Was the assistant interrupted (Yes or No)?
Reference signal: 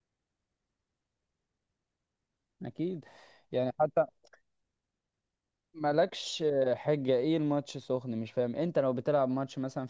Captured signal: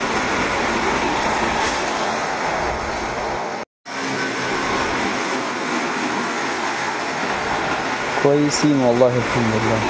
Yes